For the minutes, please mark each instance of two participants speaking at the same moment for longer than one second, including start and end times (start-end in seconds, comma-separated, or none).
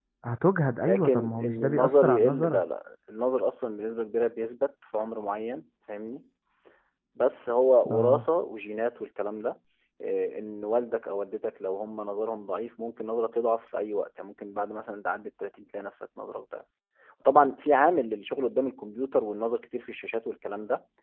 0.8-2.6